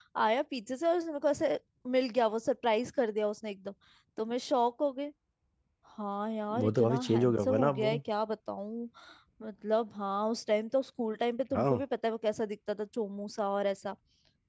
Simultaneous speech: Yes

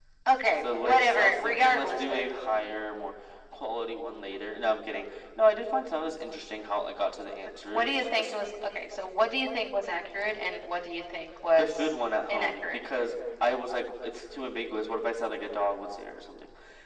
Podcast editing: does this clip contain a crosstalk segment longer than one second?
Yes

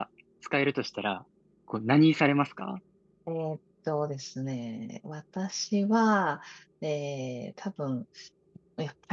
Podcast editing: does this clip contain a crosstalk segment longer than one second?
No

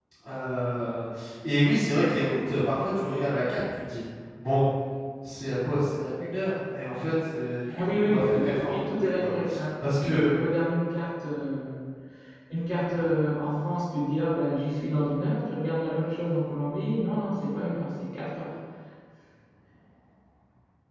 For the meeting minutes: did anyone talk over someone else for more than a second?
Yes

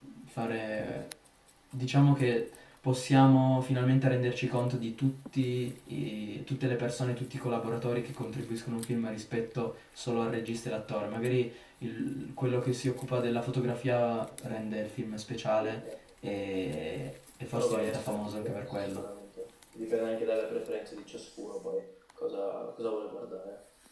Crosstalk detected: Yes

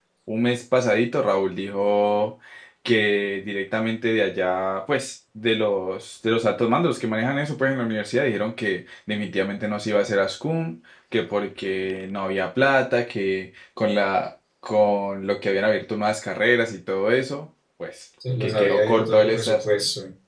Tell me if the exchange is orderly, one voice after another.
No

